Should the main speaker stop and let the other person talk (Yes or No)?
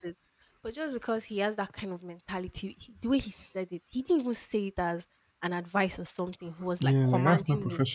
Yes